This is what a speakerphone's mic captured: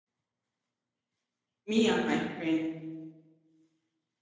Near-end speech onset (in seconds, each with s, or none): 1.6 s